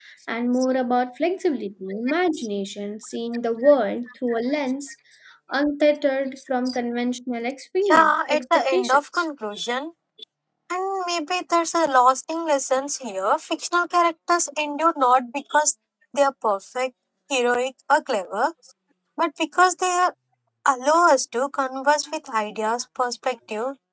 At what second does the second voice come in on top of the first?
8 s

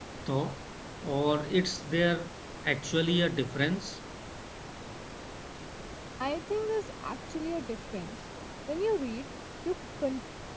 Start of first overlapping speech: none

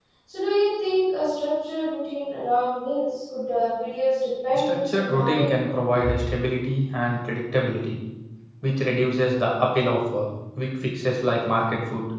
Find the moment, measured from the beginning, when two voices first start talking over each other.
5 s

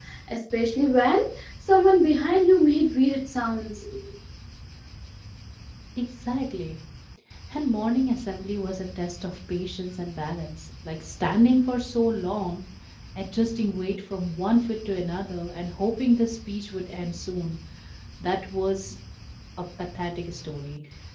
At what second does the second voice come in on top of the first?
none

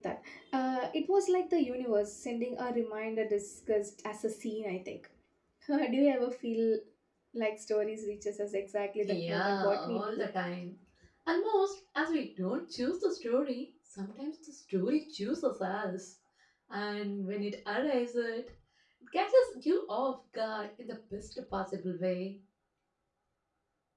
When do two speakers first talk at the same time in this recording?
9 s

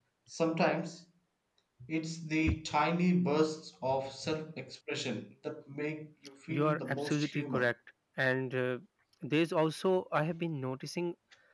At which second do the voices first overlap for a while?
6 s

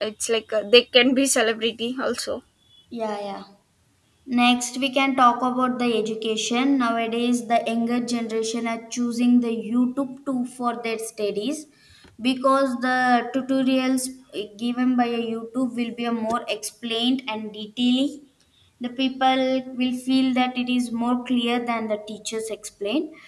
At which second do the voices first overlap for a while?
none

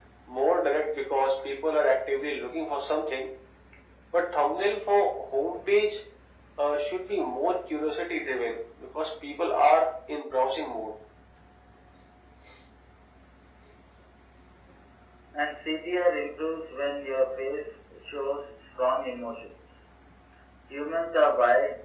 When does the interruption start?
none

